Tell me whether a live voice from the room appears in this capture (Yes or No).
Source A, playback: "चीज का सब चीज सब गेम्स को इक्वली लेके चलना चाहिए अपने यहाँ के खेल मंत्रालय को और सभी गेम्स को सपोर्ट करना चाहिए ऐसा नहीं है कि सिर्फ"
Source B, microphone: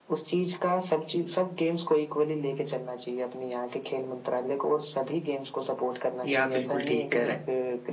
Yes